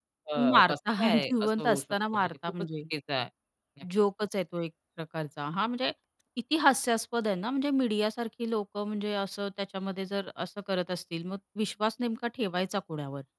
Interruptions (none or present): present